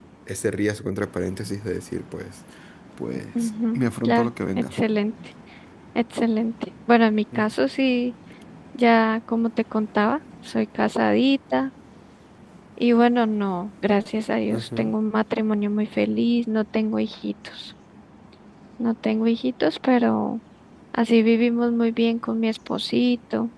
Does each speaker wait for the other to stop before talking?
No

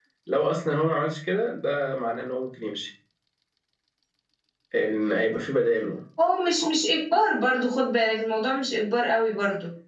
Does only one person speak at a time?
Yes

